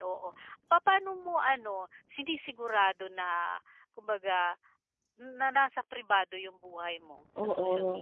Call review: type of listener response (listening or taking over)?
taking over